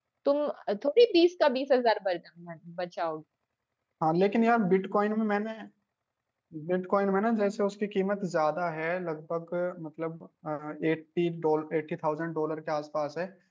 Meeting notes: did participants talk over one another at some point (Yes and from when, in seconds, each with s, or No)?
No